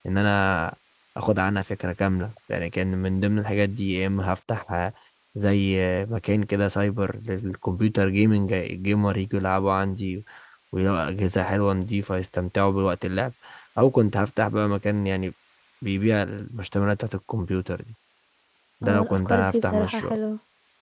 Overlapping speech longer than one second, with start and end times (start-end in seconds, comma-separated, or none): 18.8-20.2